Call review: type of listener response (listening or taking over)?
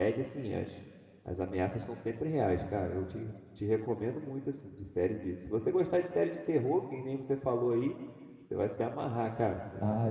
taking over